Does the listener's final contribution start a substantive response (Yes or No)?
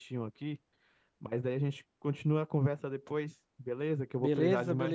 Yes